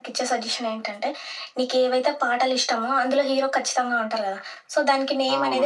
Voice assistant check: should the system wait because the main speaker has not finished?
Yes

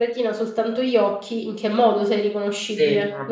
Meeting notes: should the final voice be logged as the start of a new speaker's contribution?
Yes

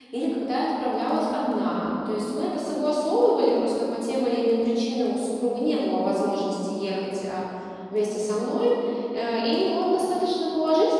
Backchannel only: Yes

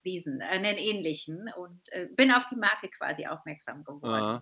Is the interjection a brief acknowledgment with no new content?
No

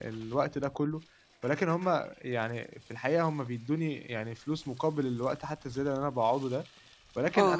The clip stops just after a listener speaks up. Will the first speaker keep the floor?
Yes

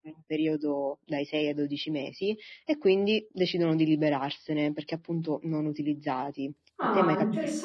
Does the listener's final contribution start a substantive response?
Yes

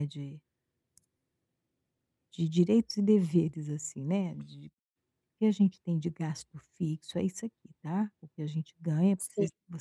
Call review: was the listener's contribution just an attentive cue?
Yes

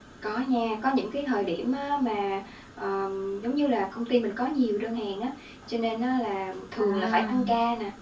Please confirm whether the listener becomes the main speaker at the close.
No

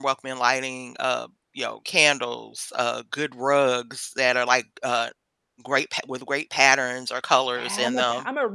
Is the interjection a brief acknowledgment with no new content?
No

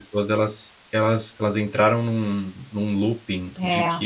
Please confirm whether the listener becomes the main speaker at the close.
No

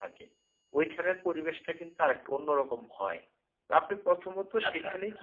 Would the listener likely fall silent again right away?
Yes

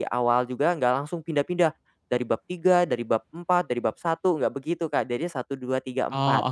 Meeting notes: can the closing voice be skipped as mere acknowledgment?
No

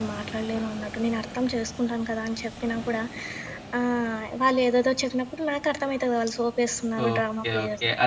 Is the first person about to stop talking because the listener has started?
Yes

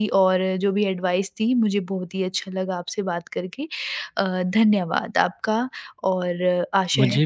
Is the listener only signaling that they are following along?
No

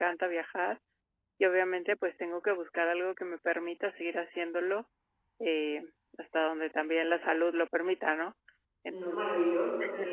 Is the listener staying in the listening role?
No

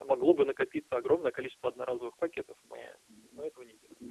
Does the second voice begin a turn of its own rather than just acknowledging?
Yes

